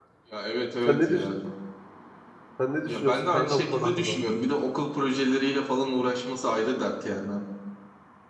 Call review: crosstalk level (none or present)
present